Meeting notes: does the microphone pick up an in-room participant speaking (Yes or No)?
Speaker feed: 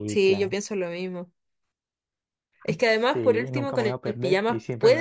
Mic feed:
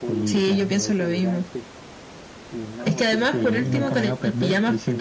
Yes